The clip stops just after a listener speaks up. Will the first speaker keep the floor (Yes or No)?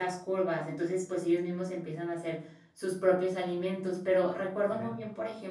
Yes